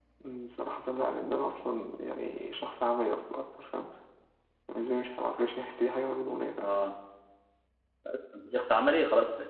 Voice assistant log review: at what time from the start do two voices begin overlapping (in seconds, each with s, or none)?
none